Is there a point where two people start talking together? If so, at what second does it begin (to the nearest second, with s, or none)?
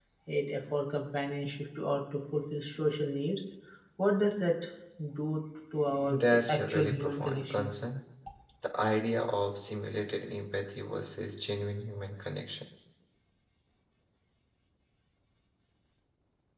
6 s